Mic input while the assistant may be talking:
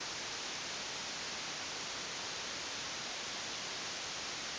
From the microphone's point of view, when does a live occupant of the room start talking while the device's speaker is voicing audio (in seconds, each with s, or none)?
none